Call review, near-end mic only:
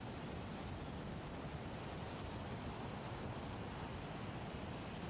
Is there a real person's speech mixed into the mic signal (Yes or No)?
No